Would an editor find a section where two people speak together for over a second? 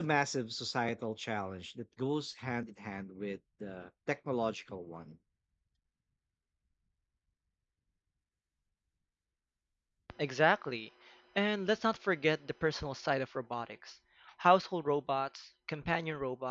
No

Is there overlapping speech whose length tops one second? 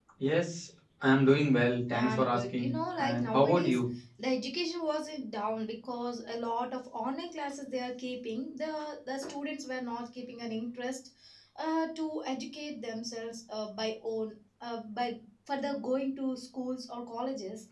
Yes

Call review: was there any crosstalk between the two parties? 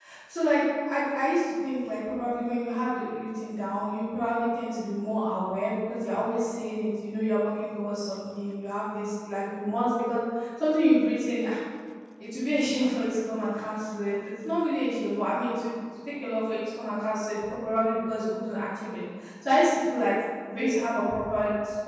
No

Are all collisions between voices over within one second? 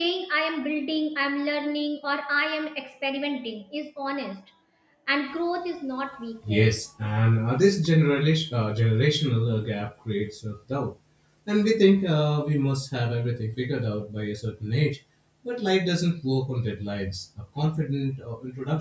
Yes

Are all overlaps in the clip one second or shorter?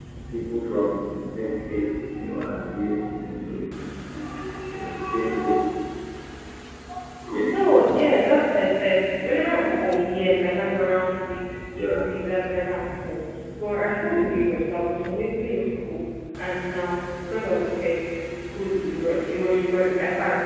Yes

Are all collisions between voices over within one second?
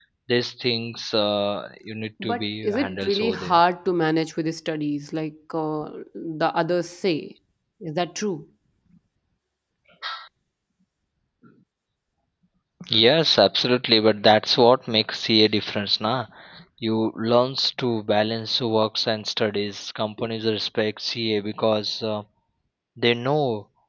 No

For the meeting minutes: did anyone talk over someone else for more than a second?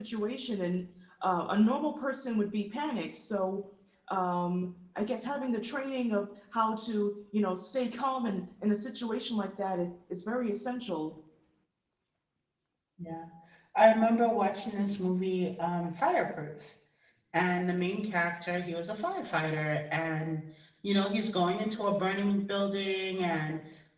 No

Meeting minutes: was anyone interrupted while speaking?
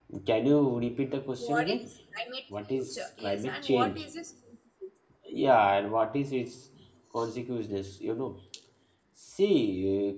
Yes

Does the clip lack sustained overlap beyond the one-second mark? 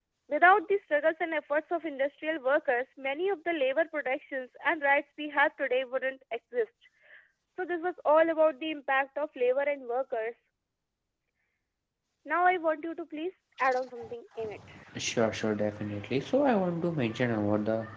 Yes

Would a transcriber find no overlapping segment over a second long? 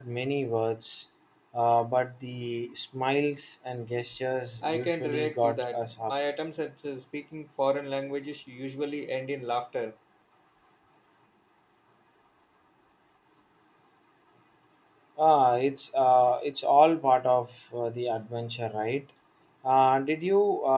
No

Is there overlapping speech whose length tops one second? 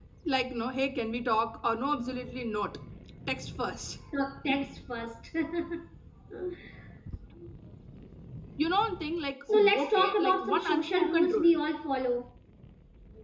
Yes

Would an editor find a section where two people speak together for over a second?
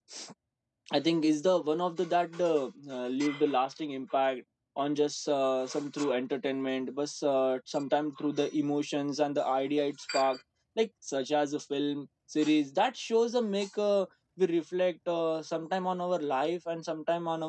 No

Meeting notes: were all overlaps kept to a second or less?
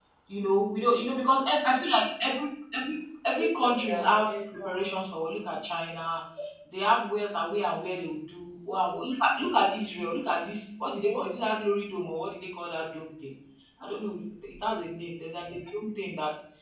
No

